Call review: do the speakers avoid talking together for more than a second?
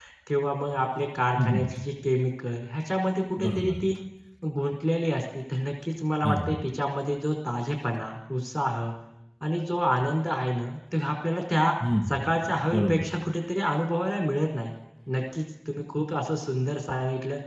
Yes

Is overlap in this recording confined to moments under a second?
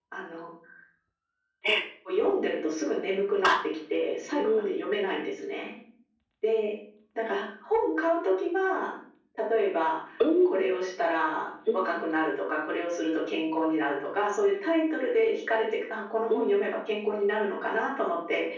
Yes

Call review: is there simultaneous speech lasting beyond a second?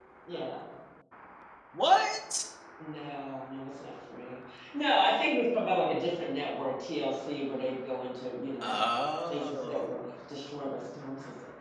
No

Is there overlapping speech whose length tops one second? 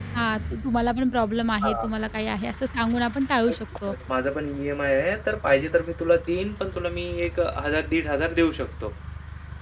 No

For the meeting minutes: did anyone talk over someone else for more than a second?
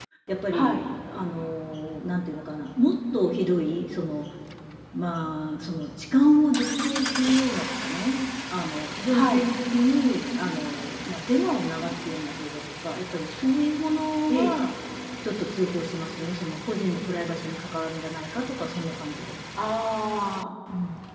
No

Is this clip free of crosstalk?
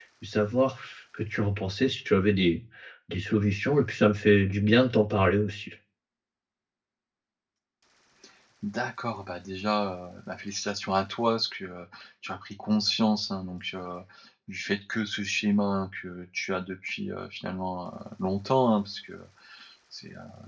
Yes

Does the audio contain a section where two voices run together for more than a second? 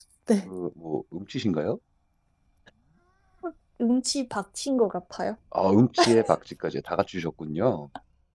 No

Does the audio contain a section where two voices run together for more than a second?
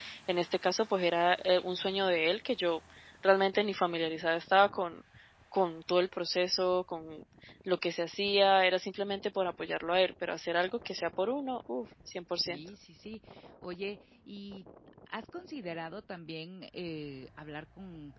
No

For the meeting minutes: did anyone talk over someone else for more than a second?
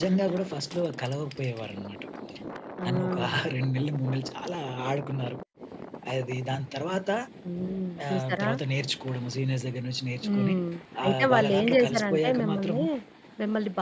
Yes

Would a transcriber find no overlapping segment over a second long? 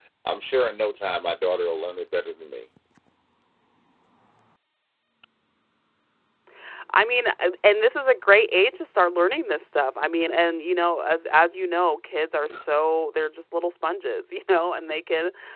Yes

